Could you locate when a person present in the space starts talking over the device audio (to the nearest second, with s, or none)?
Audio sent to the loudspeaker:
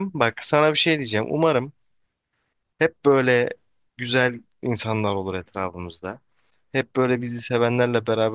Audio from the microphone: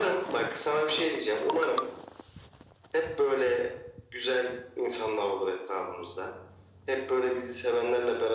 none